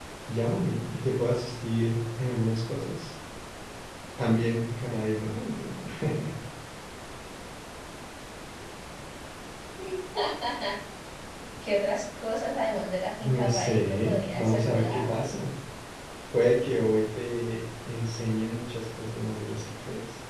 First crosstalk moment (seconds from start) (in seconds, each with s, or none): 13.2 s